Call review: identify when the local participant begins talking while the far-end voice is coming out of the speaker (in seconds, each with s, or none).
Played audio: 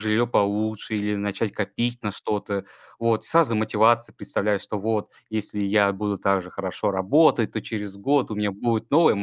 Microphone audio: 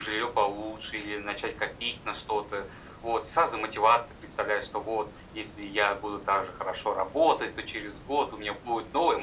none